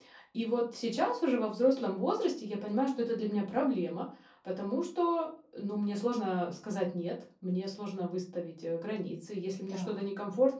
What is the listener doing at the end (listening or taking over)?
listening